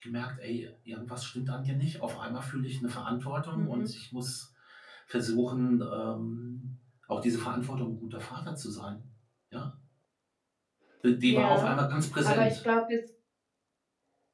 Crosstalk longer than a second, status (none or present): none